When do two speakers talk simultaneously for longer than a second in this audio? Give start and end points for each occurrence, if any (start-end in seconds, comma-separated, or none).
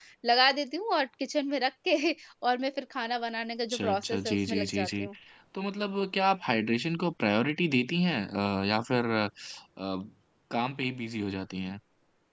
3.7-5.1